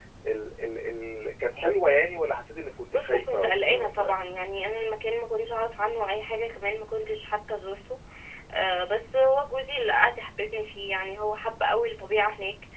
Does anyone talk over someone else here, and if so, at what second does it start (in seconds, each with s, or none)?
2.9 s